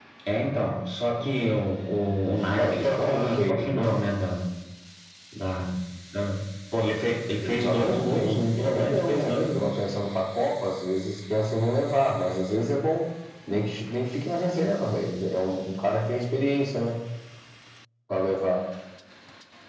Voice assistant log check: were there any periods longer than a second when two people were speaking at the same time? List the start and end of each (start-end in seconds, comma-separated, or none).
2.6-4.0, 7.4-9.8